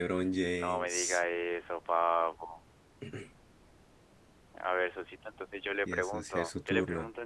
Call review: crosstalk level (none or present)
present